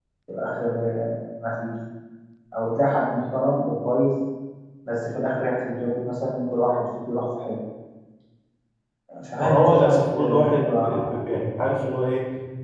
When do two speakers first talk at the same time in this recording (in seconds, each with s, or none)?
9.4 s